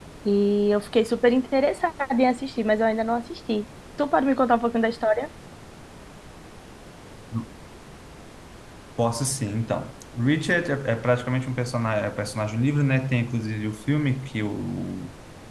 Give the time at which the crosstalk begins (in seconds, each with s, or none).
none